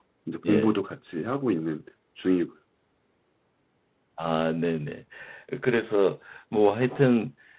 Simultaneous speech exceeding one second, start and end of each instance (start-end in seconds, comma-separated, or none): none